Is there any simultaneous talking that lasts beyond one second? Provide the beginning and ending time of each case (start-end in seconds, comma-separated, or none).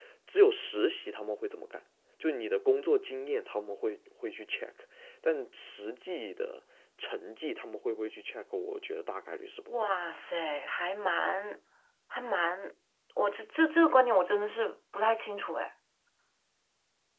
none